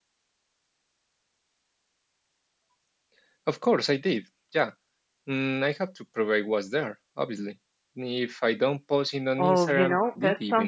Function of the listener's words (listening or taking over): taking over